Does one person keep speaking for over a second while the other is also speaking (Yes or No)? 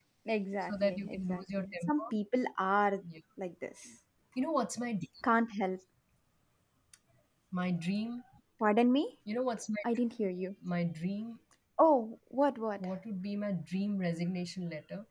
Yes